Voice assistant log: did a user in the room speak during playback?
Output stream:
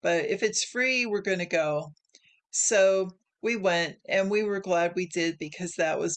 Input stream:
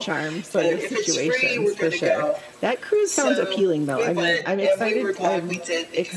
Yes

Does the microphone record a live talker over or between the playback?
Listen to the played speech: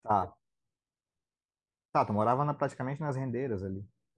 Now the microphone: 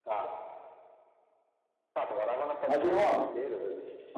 Yes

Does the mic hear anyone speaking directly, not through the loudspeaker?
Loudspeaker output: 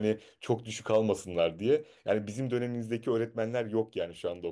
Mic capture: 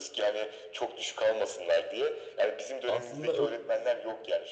Yes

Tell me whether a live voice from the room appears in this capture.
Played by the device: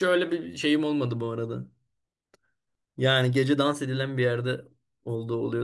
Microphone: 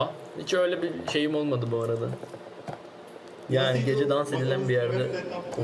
Yes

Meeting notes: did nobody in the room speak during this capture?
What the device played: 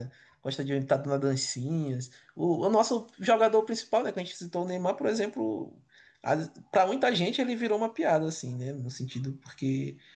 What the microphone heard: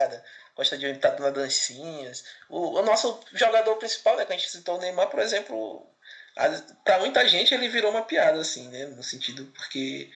Yes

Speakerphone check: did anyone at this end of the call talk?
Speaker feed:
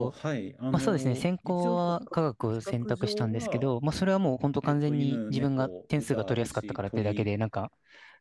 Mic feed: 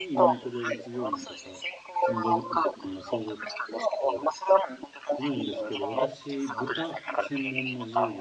Yes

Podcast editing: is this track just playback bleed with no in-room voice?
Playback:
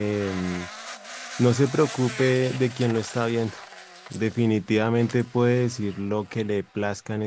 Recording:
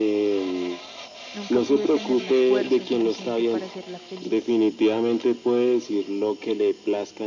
No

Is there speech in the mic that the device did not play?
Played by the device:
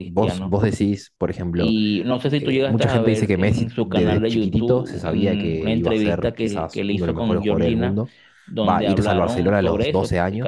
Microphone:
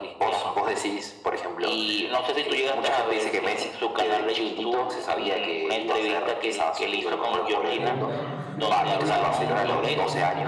Yes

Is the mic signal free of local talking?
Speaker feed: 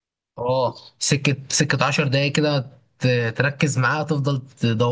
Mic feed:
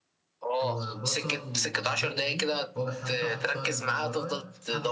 No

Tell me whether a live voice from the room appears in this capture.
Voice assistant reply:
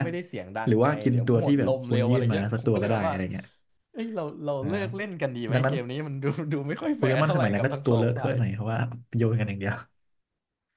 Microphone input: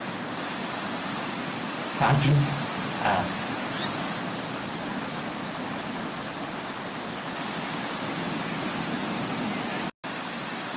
Yes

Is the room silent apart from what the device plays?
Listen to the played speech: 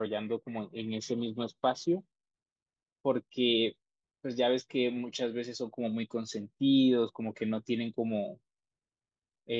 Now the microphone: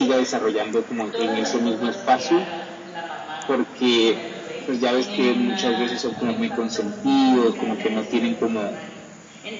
No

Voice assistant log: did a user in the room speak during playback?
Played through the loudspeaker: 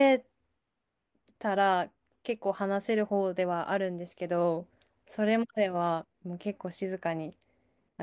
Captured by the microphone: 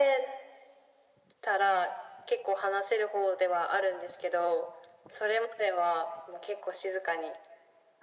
No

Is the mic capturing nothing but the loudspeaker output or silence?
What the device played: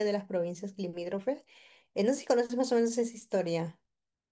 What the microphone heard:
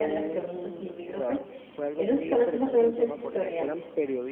No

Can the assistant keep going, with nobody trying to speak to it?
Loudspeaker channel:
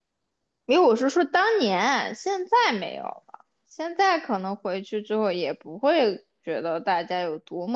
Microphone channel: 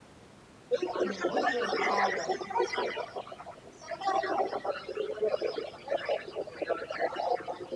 No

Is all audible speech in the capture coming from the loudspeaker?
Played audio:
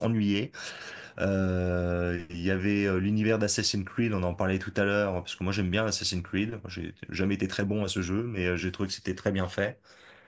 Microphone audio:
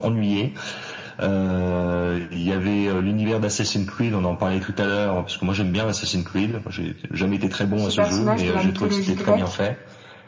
No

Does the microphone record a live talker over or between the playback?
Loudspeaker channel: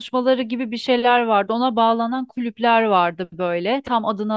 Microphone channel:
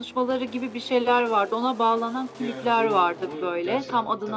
Yes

